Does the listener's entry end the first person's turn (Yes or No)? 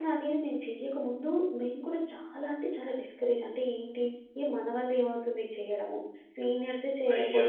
No